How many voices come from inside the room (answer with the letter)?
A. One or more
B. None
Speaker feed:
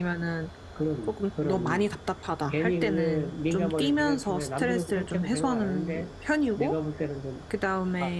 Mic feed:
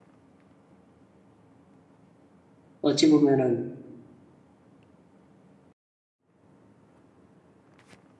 A